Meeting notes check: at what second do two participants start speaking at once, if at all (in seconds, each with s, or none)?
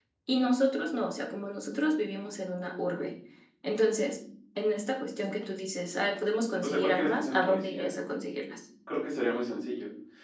6.6 s